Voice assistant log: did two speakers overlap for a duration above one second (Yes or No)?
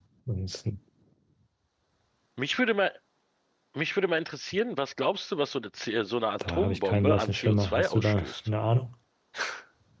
Yes